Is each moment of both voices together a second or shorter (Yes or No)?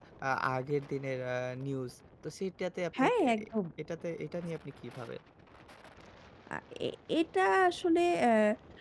Yes